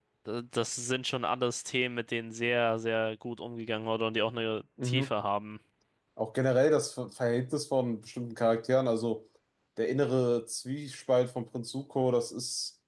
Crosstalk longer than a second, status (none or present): none